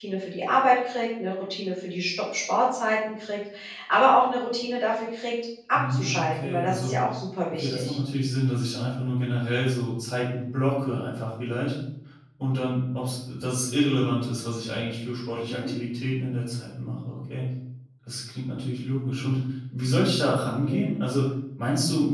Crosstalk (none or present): present